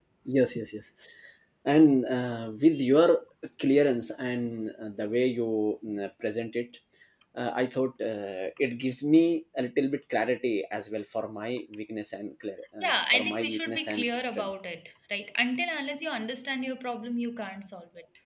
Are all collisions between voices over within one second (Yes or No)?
No